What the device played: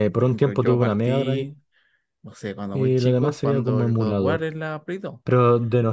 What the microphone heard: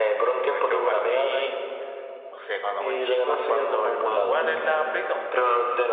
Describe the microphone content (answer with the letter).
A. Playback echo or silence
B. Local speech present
B